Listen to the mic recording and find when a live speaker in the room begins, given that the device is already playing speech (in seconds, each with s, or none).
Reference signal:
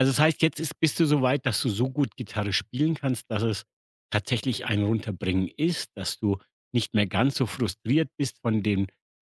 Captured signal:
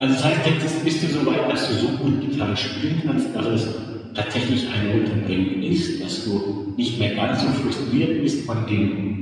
none